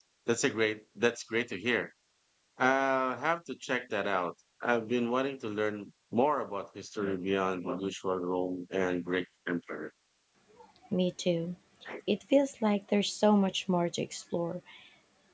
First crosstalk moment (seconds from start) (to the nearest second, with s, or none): none